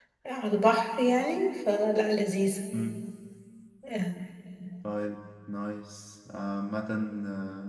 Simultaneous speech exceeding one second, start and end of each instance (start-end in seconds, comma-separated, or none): none